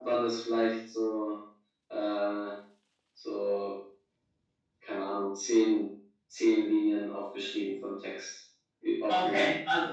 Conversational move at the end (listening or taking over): taking over